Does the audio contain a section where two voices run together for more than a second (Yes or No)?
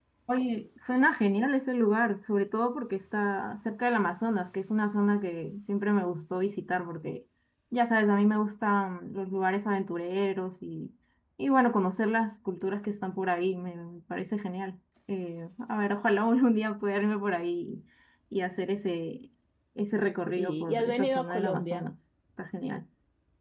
Yes